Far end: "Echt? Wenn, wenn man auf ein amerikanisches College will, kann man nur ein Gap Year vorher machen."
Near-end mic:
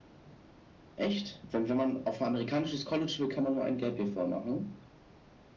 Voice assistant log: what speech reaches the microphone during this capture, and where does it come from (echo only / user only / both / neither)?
echo only